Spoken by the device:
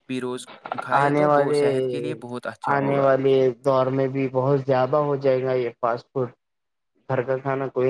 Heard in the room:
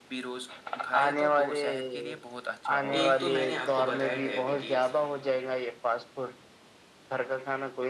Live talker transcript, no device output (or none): ایک تو میں نے آپ کو بتایا ڈائبٹیز